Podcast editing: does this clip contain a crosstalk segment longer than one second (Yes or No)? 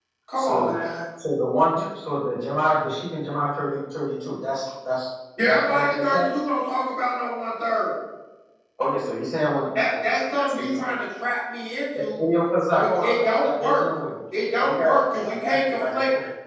Yes